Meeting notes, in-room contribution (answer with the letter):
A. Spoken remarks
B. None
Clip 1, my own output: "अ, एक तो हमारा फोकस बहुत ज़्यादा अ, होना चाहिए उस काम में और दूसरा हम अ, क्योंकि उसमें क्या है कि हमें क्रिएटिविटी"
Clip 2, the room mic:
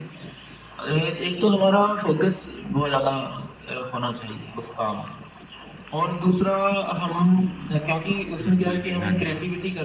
A